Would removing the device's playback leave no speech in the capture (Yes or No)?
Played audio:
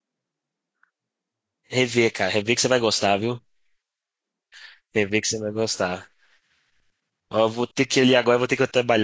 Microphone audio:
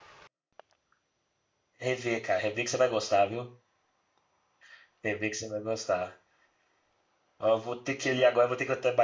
Yes